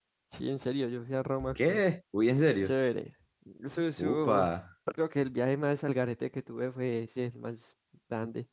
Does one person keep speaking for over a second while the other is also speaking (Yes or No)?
No